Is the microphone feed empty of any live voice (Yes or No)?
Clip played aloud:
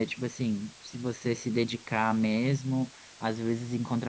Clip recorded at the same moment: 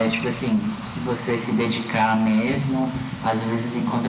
Yes